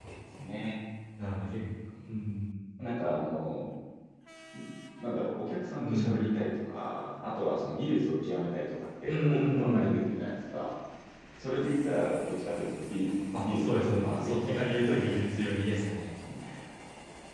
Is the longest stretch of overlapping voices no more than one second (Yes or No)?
No